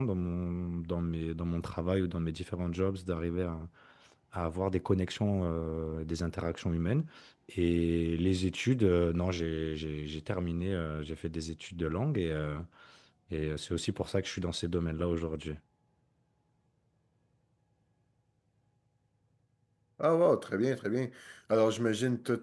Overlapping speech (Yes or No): No